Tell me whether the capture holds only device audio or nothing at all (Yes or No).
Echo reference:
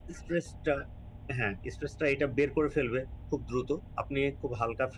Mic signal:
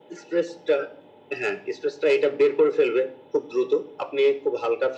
Yes